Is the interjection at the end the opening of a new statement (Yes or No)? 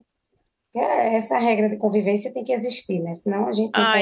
Yes